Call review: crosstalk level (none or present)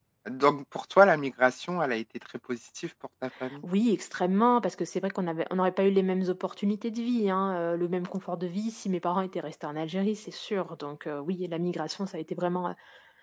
none